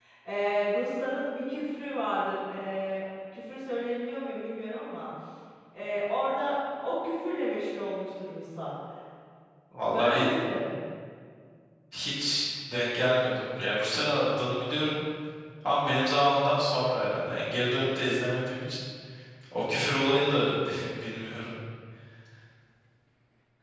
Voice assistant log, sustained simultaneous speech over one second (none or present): none